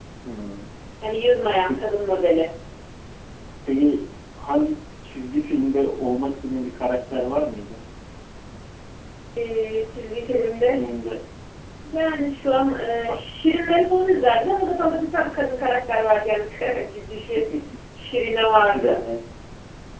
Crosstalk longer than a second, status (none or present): none